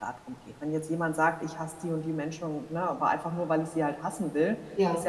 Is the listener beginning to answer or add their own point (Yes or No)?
No